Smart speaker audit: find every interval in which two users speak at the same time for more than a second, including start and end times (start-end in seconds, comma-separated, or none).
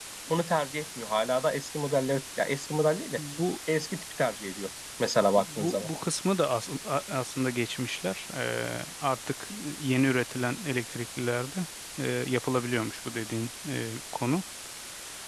none